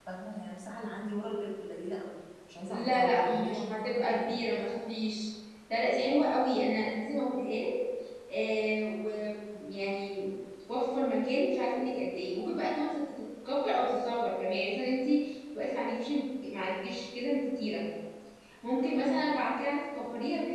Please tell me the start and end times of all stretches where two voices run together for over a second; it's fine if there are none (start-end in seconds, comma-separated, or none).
2.7-4.3